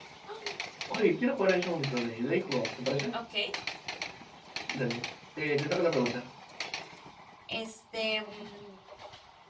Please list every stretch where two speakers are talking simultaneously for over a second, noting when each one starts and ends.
none

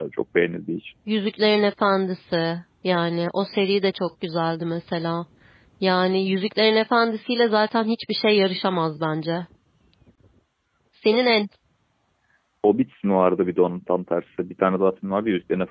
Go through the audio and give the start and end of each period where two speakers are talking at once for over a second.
none

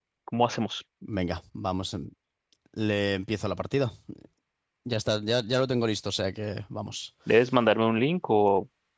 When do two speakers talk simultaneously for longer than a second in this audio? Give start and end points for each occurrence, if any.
none

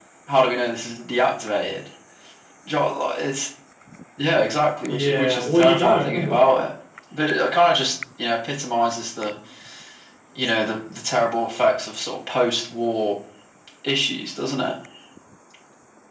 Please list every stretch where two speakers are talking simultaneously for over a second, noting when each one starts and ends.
4.9-6.4

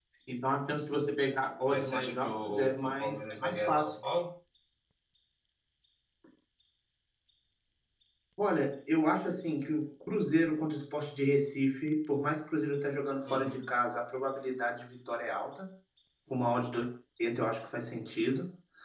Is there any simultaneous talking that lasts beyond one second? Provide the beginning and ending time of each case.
1.7-3.9

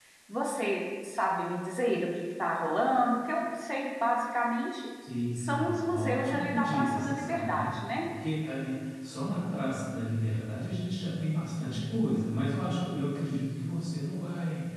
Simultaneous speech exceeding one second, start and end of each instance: 5.4-7.8

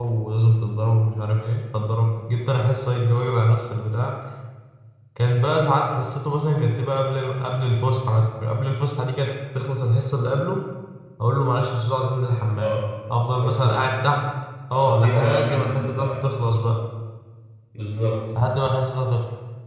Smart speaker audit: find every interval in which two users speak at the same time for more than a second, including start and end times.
14.7-16.0

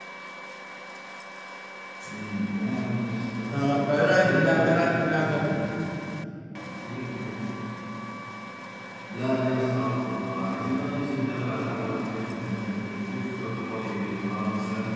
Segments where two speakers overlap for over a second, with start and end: 3.5-5.5

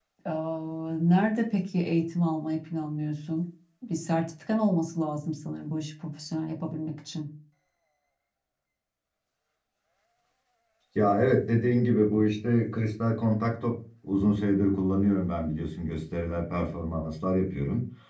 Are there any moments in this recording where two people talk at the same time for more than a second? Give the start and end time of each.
none

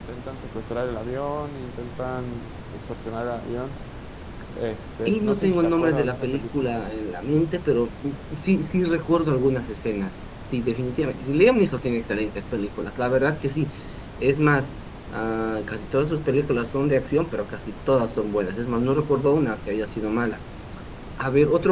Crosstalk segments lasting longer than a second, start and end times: 5.0-6.7

